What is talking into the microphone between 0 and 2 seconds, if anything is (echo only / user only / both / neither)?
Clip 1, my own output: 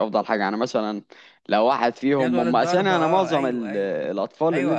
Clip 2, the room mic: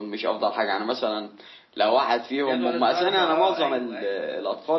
echo only